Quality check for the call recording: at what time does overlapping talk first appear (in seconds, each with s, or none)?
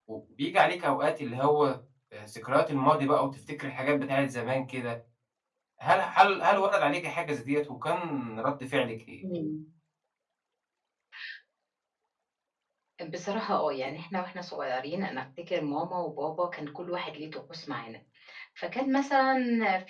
none